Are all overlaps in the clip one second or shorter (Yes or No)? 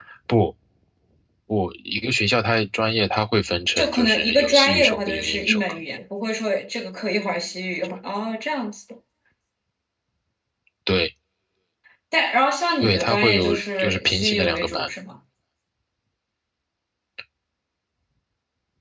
No